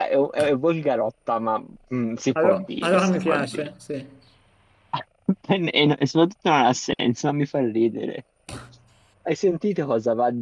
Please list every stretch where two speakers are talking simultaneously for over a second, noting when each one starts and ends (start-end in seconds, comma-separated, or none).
2.4-3.7